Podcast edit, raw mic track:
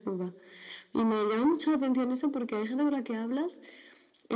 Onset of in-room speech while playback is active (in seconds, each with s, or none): none